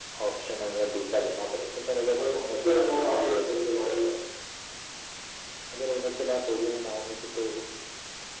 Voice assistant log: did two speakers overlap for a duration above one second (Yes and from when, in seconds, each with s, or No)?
Yes, from 2.2 s